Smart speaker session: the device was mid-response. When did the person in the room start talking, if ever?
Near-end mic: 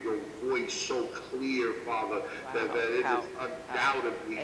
2 s

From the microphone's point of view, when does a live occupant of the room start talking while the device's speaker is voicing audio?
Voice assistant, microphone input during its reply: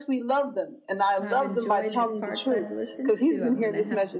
1 s

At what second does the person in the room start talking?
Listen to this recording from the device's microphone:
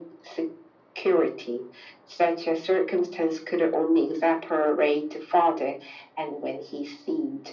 none

